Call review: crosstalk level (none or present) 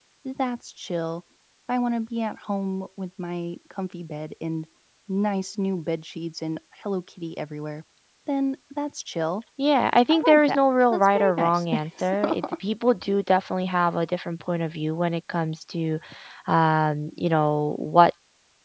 present